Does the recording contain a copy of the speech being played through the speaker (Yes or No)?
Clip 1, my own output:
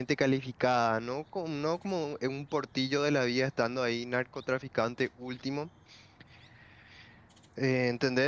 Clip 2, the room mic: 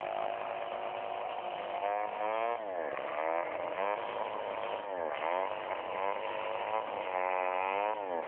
No